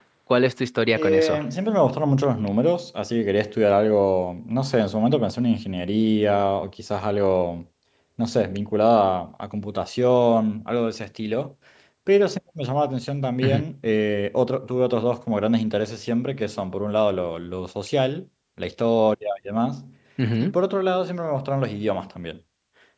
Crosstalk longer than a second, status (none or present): none